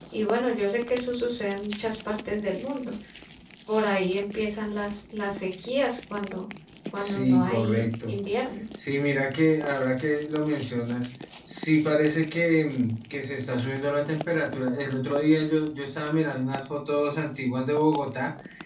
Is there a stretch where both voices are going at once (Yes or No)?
Yes